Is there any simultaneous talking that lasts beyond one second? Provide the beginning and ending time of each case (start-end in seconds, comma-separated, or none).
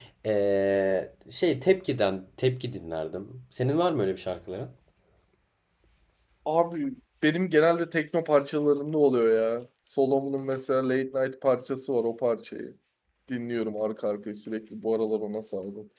none